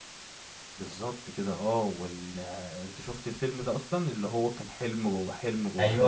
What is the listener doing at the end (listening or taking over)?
taking over